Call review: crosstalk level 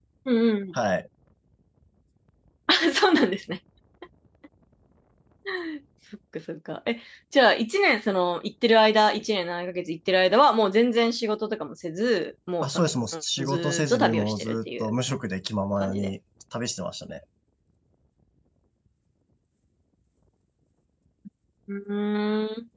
present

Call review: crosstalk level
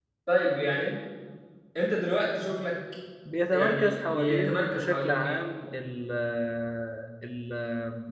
present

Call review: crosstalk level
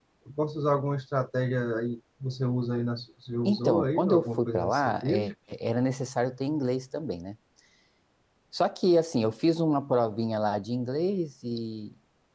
present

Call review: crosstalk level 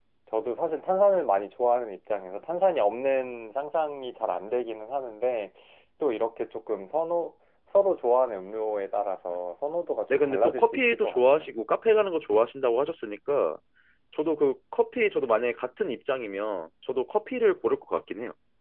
present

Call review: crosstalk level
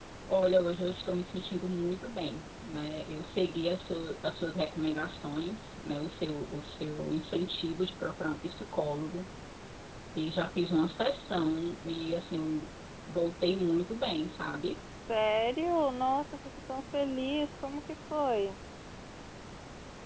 none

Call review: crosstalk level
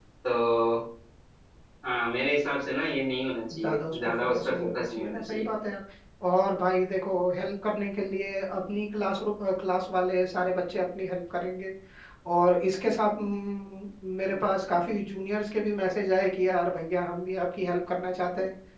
present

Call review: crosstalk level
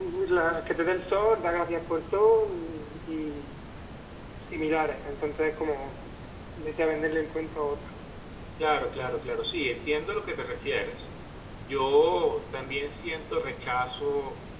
none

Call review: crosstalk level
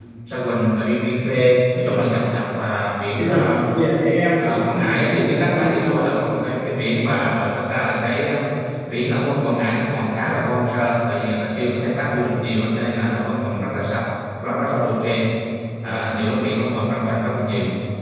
present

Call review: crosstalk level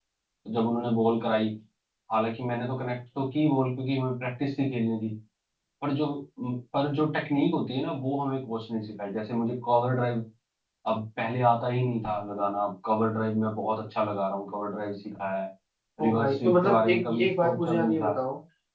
present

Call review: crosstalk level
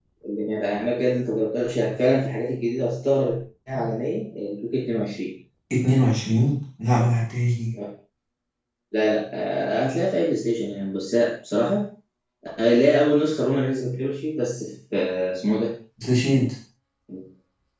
none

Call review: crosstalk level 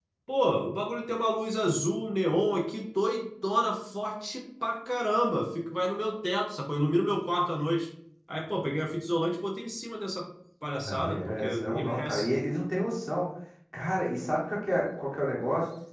present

